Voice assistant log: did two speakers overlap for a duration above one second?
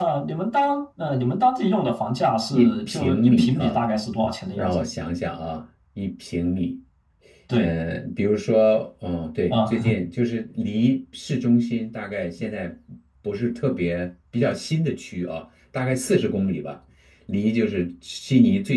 Yes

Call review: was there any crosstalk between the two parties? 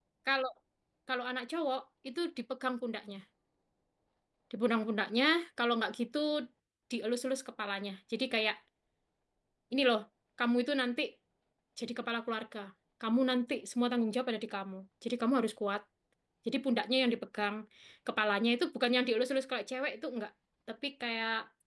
No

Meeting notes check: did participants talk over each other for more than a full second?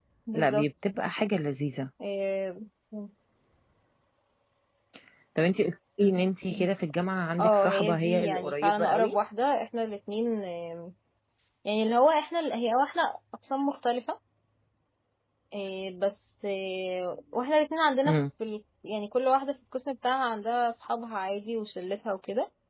Yes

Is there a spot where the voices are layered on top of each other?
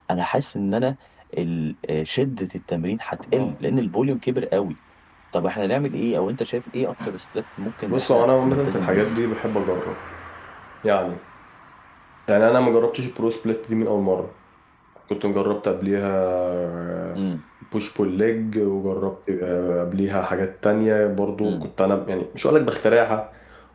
Yes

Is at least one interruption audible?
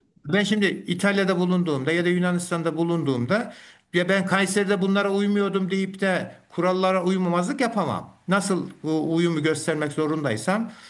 No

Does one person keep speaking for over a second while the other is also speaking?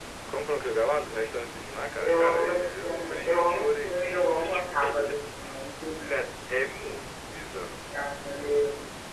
Yes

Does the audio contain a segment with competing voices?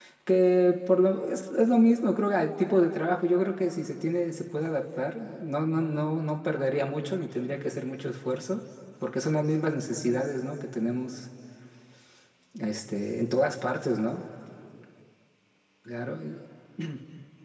No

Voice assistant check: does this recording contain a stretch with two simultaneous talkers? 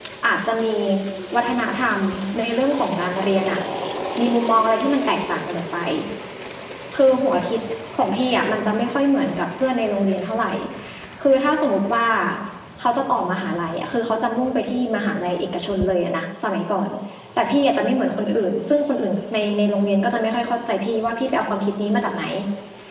No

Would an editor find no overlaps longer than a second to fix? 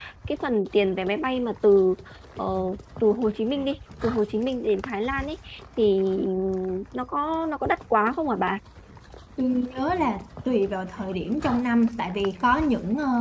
Yes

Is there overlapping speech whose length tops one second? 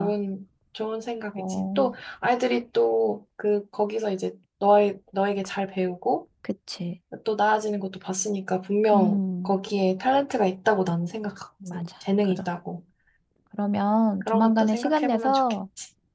Yes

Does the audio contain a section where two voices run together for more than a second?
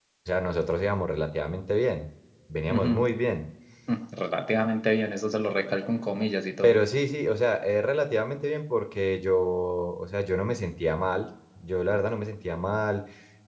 No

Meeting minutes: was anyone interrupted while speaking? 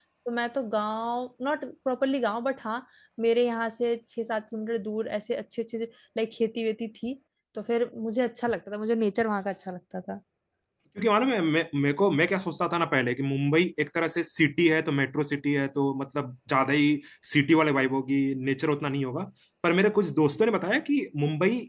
No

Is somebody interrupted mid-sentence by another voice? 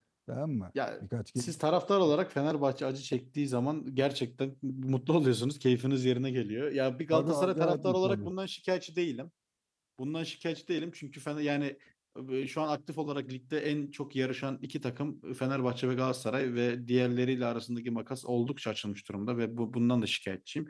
Yes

